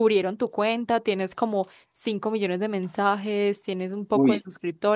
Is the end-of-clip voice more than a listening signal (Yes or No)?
No